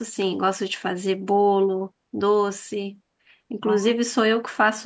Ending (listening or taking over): listening